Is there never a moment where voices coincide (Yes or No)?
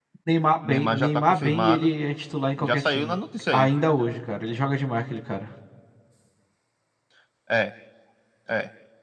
No